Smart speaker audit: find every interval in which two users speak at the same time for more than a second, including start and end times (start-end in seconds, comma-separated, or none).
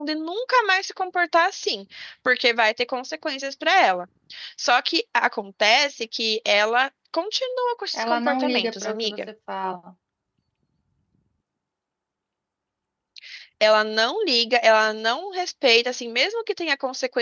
7.9-9.2